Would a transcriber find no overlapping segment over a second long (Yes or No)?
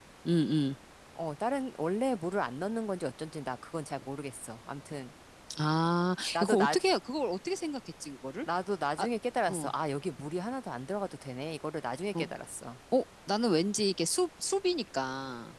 Yes